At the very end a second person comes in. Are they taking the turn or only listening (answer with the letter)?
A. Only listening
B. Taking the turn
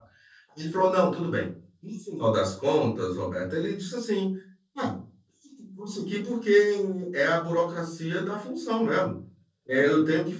A